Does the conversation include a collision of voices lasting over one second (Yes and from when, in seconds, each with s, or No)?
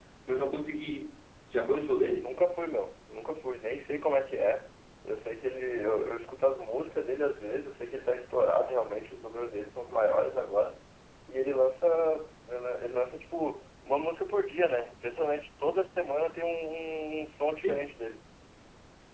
No